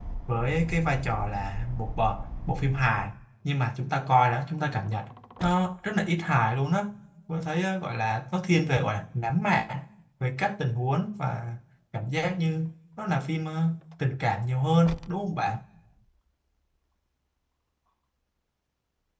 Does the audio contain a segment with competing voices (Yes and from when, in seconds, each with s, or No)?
No